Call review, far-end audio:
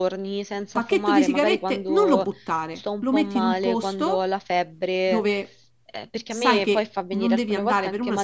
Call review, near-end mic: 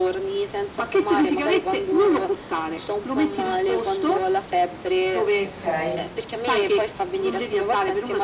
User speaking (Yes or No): Yes